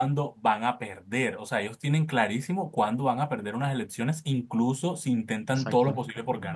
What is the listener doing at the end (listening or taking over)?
listening